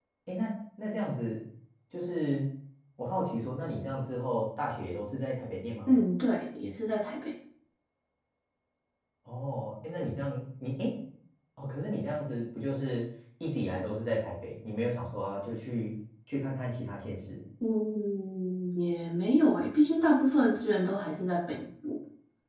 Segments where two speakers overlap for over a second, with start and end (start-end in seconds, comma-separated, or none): none